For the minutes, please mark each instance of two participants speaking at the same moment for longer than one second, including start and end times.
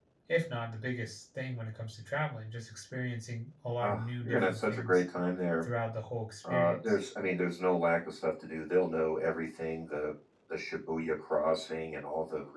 3.8-5.0

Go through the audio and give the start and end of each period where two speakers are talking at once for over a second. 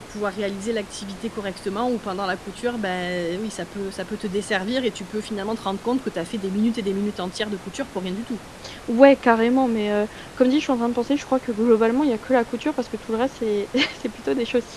none

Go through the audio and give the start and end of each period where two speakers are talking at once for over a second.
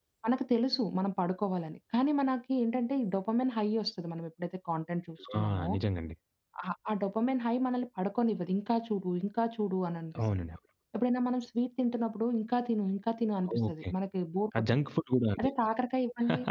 none

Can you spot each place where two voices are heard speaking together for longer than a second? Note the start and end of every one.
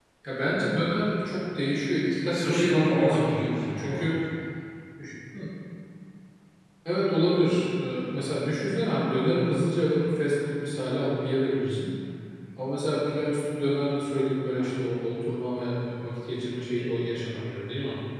2.4-4.2

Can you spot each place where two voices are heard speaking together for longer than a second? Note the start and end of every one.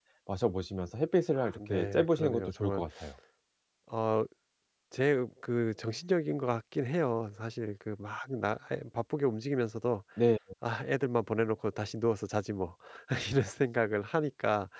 1.4-2.8

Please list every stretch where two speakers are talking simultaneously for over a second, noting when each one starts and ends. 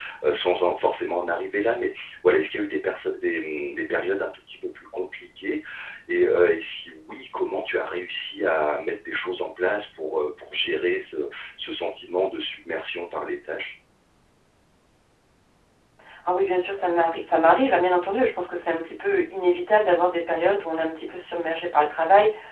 none

